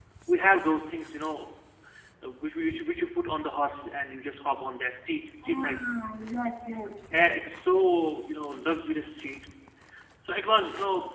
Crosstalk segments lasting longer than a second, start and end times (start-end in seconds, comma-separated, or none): none